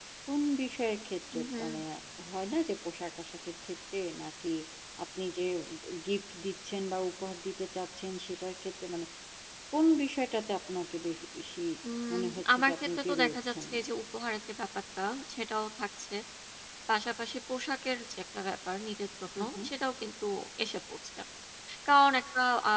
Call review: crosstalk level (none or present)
present